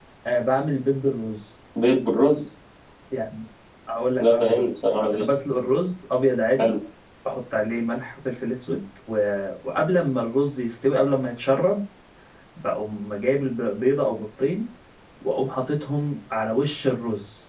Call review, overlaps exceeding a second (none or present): none